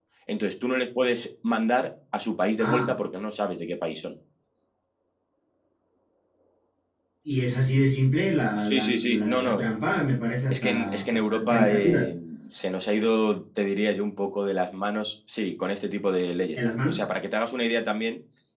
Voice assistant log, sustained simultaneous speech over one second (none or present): present